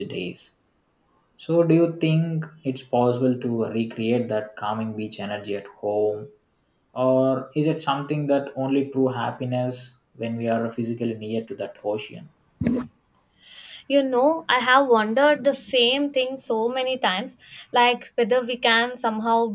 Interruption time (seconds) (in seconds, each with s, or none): none